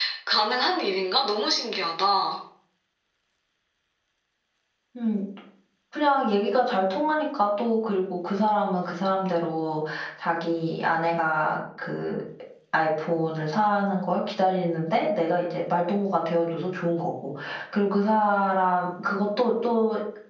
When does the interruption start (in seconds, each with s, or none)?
none